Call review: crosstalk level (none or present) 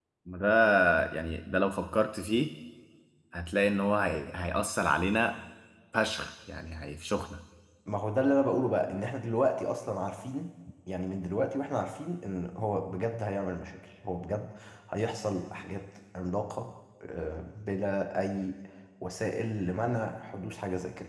none